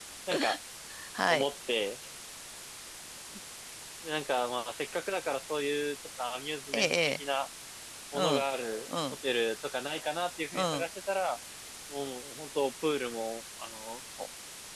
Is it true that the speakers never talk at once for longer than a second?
Yes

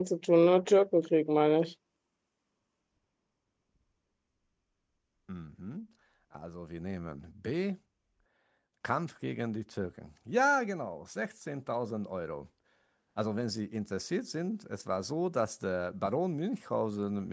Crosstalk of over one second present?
No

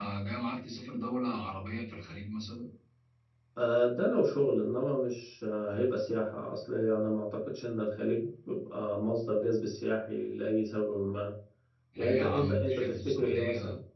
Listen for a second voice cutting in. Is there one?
Yes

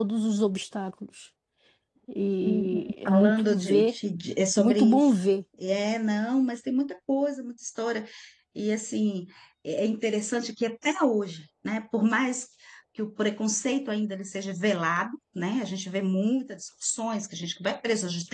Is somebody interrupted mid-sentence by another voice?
Yes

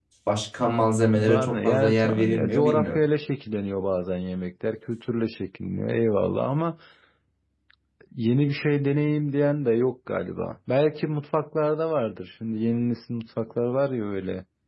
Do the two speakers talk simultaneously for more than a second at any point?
Yes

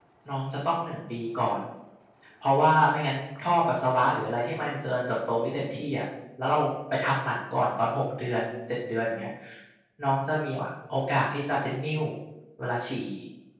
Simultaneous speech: No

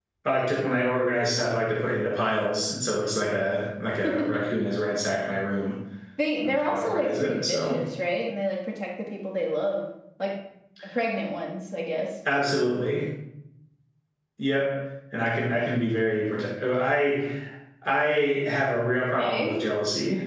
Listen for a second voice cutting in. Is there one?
Yes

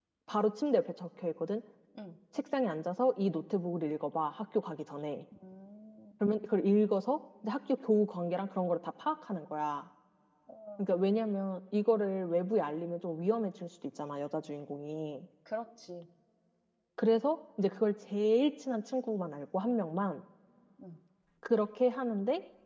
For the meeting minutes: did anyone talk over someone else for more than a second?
No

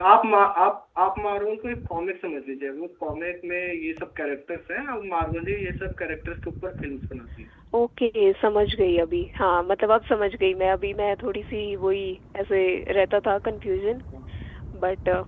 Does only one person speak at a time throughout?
Yes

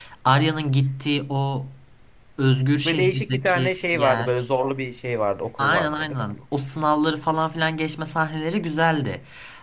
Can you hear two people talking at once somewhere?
Yes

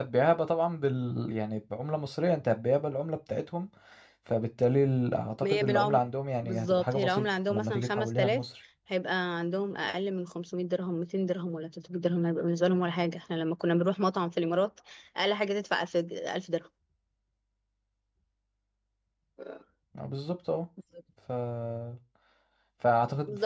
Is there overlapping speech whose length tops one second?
Yes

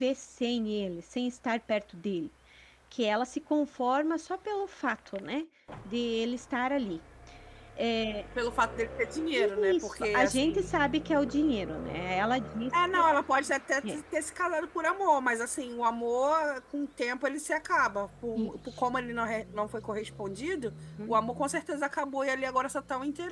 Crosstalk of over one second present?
Yes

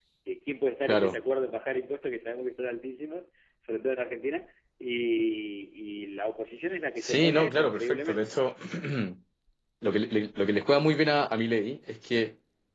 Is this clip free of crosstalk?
No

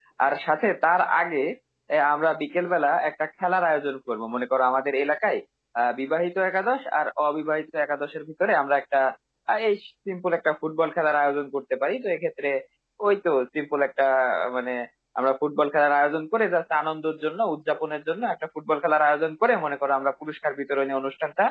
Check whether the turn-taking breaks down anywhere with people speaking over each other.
No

